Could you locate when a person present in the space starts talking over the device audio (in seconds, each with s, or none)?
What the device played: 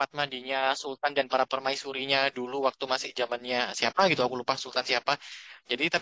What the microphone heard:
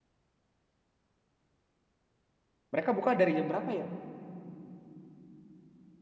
2.7 s